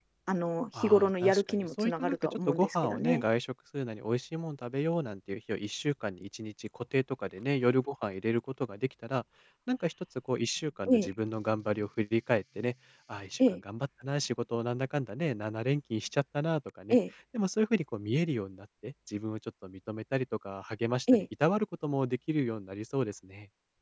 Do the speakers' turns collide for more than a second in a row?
Yes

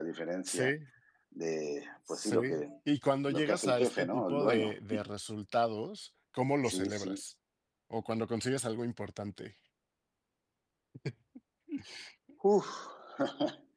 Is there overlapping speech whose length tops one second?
Yes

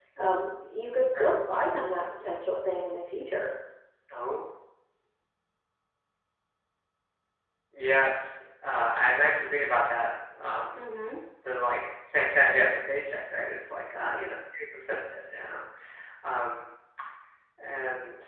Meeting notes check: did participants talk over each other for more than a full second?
No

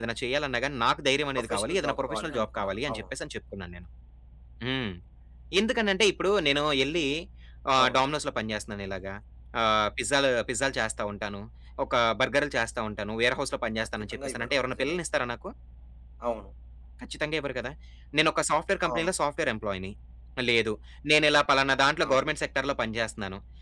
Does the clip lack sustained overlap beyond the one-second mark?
No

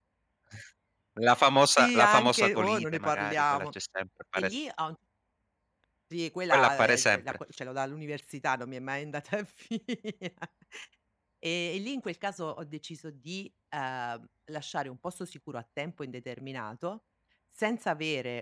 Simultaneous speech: Yes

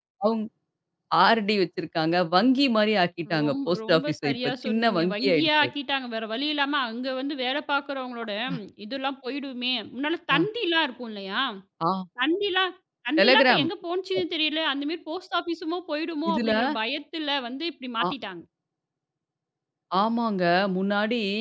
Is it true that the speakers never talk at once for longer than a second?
No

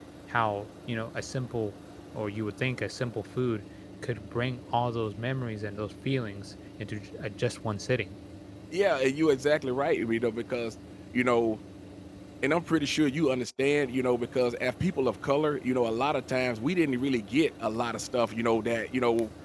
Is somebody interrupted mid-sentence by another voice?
No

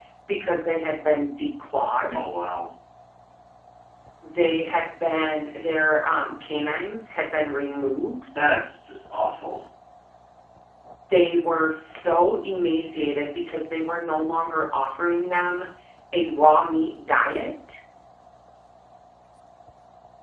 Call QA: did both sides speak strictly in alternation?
Yes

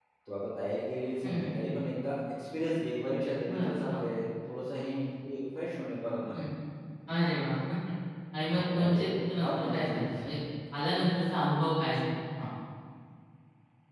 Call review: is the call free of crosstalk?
No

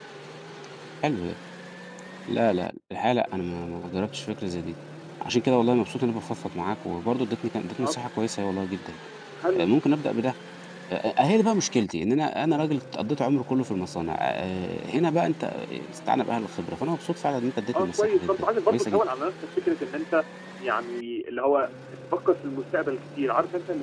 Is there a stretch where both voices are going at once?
Yes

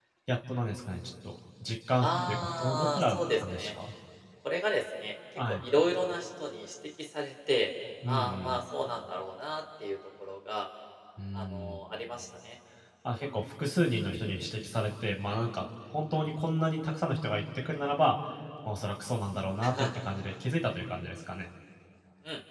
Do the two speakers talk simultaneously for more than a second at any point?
Yes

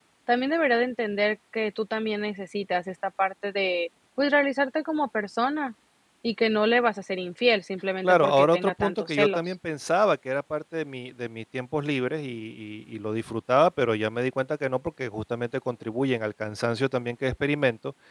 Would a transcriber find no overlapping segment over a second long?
No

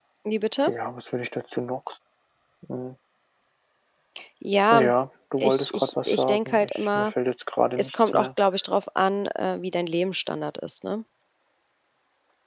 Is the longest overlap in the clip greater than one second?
Yes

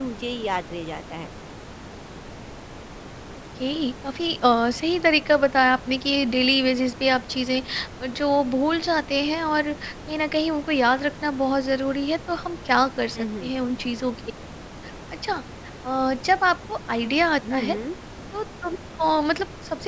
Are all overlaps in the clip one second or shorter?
Yes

